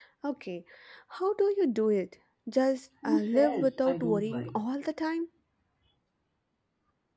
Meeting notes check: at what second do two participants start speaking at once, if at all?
3 s

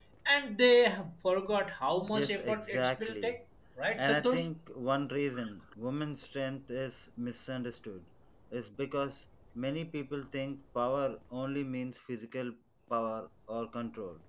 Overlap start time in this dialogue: 2 s

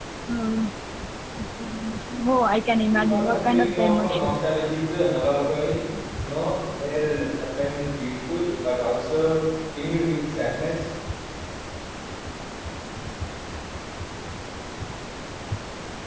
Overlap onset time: 3 s

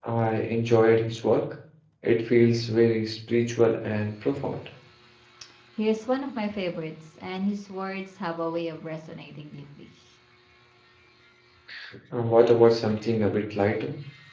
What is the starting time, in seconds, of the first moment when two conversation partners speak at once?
none

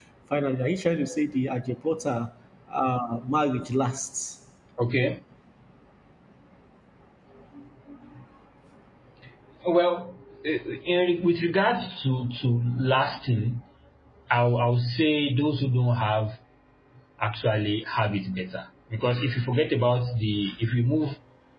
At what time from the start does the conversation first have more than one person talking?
none

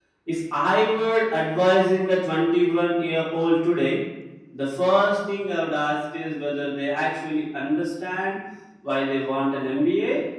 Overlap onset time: none

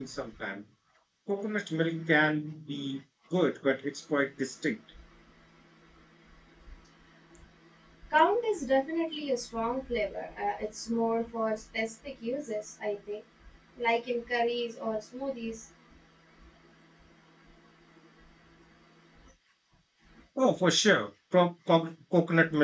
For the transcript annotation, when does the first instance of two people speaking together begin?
none

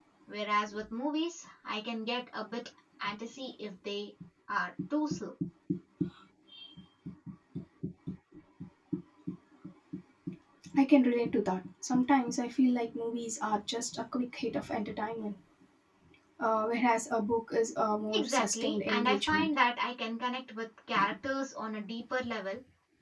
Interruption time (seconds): 18 s

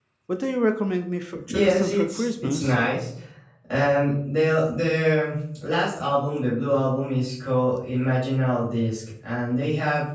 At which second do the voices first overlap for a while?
1 s

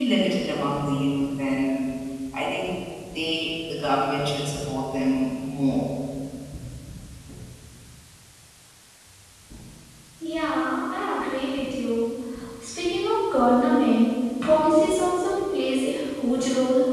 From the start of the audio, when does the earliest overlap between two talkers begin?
none

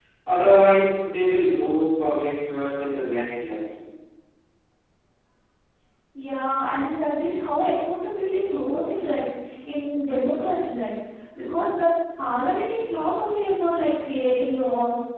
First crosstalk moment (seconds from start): none

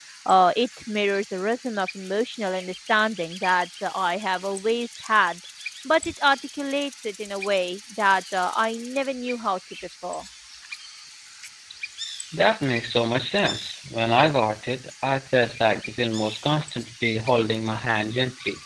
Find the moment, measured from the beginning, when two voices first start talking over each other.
none

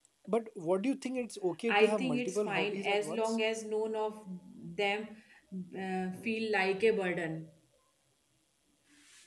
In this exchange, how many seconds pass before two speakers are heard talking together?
2 s

